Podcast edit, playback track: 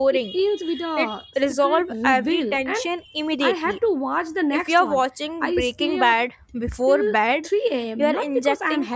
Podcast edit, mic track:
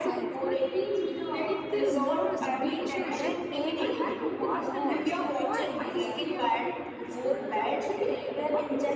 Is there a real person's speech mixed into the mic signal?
Yes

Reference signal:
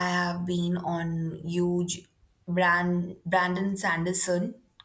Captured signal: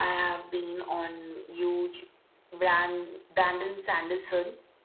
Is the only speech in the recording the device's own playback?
Yes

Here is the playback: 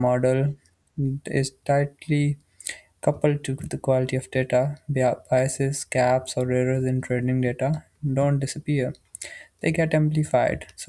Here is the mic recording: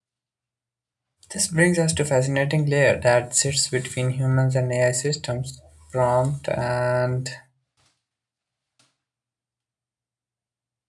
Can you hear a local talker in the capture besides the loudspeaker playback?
Yes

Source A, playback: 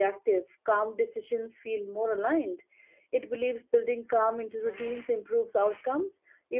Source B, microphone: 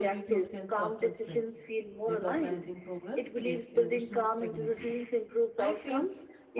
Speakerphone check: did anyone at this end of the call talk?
Yes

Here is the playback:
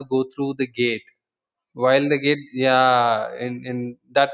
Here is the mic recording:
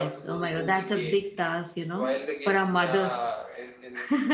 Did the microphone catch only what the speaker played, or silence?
No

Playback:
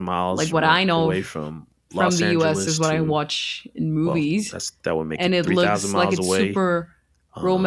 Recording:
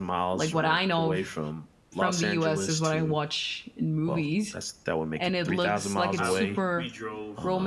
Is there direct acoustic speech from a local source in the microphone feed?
Yes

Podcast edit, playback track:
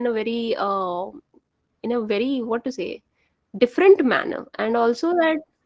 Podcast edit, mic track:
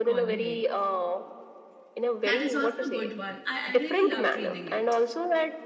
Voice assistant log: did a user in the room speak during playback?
Yes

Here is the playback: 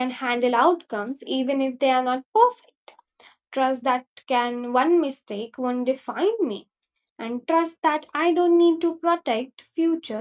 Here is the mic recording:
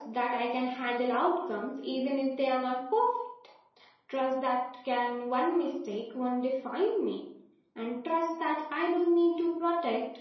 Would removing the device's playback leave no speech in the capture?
Yes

